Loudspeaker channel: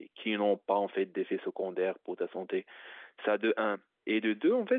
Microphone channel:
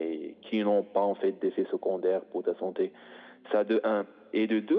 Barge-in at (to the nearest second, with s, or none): none